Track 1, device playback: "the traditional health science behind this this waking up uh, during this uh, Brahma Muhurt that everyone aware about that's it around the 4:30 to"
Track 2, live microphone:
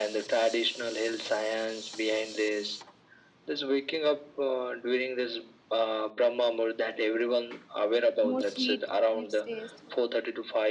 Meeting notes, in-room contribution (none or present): present